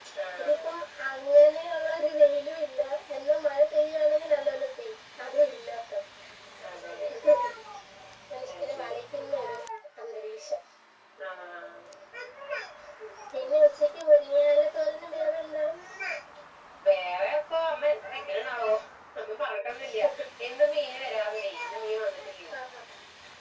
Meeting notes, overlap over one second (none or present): none